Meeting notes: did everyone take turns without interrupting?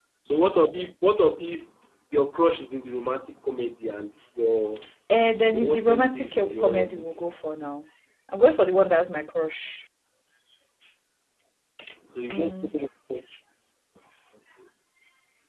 No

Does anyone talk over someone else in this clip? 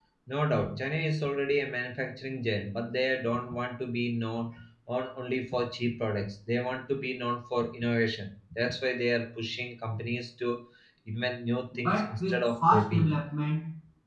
Yes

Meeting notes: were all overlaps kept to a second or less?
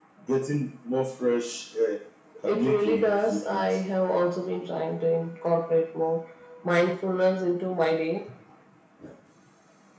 No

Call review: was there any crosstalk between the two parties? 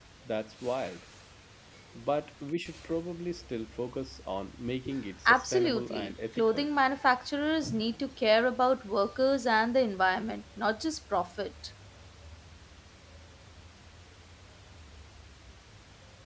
Yes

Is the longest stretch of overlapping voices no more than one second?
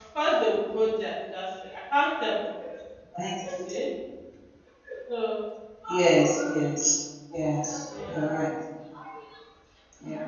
Yes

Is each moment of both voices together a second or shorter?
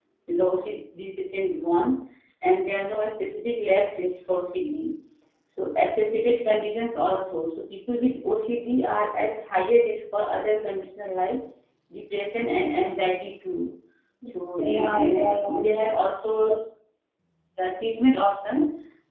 No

